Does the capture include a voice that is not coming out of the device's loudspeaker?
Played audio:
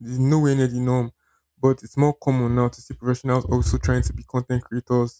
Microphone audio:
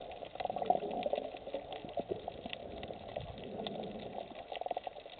No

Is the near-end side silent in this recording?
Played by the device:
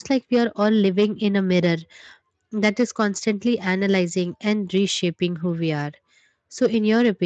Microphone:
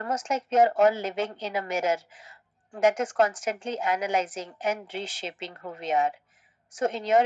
Yes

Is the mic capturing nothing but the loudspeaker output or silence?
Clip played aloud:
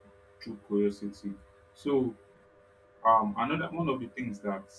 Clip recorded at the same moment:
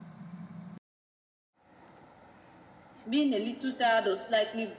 No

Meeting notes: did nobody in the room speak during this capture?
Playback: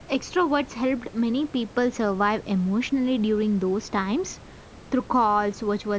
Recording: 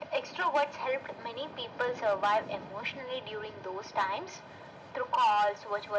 Yes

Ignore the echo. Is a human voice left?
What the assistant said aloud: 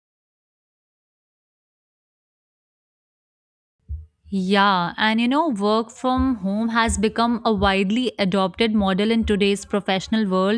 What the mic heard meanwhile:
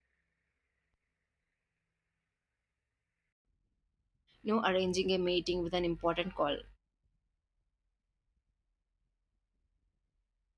Yes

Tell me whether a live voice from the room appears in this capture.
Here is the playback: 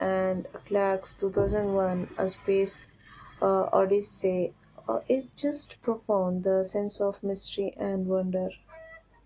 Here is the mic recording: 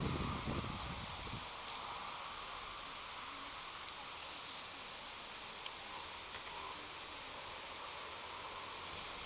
No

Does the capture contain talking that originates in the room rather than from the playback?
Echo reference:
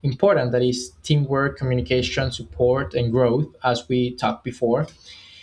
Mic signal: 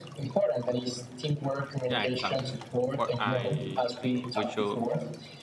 Yes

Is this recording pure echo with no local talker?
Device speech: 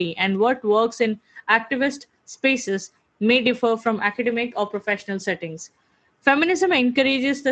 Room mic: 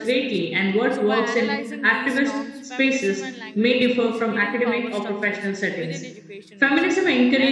No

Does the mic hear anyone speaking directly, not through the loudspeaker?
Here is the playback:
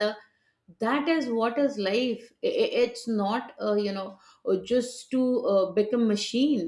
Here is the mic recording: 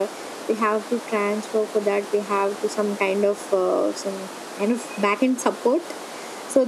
Yes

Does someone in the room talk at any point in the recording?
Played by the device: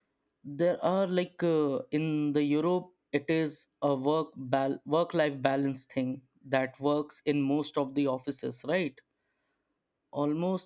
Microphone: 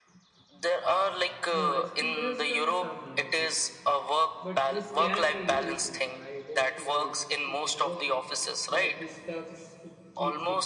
Yes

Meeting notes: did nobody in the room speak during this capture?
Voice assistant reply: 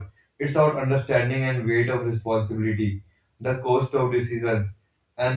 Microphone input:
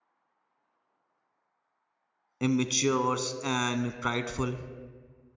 No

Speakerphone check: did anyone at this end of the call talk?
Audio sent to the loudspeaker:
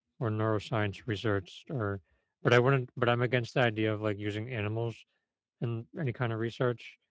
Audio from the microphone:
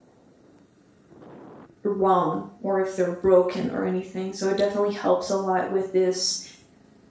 Yes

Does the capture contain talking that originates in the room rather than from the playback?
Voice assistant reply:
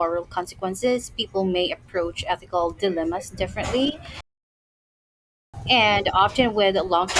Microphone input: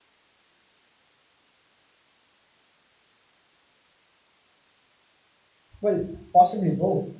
Yes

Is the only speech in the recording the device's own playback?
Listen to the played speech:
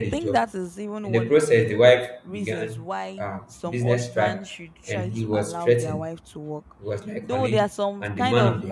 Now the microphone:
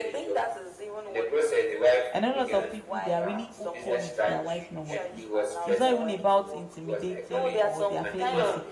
No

